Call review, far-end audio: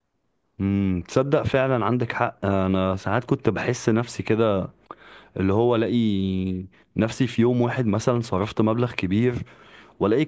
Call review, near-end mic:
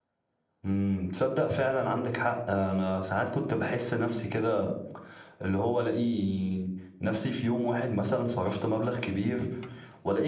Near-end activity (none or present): none